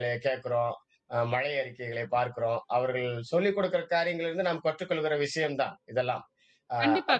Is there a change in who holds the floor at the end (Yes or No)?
Yes